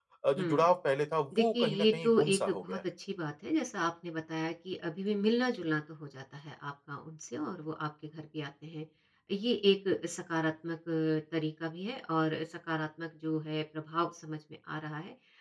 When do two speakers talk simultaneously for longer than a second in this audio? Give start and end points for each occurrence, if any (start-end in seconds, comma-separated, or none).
1.4-2.8